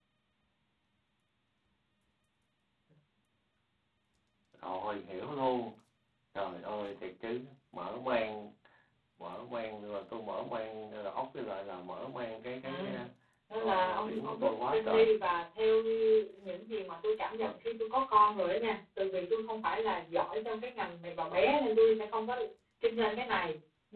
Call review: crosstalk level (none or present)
present